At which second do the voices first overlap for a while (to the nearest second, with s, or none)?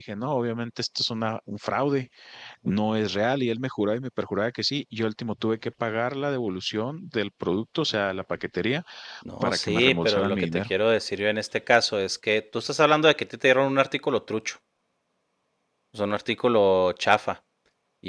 9 s